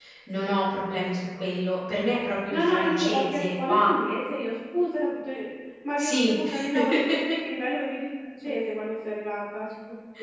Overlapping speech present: Yes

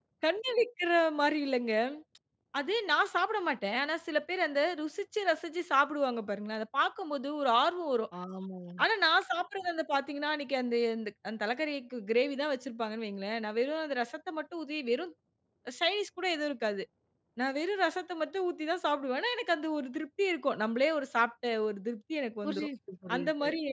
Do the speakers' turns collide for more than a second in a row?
No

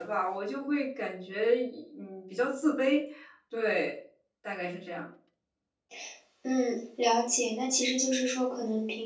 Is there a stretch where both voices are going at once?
No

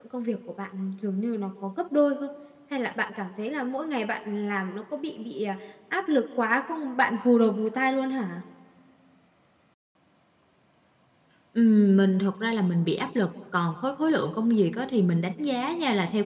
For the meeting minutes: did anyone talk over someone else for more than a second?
No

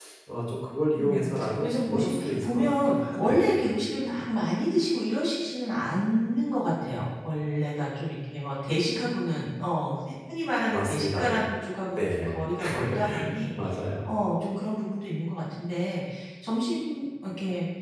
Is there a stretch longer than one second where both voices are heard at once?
Yes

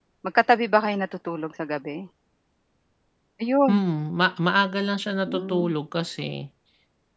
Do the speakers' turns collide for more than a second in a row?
No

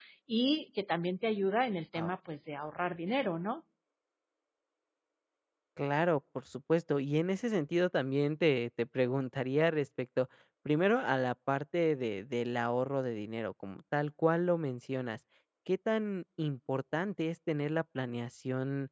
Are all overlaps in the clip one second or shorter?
Yes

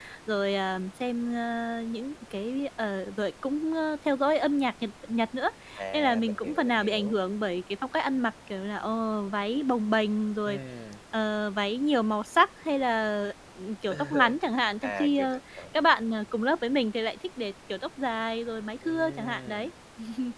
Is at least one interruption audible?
Yes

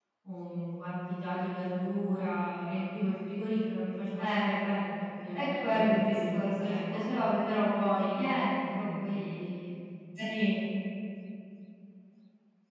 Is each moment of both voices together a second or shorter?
No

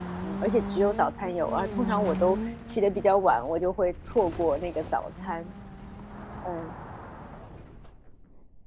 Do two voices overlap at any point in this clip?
No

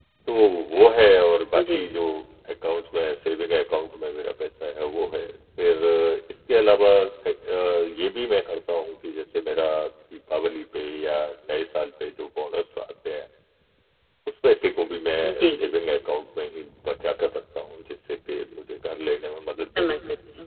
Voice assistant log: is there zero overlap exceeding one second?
Yes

